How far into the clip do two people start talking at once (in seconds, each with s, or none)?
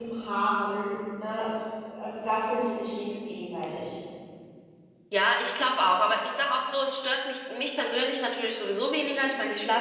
none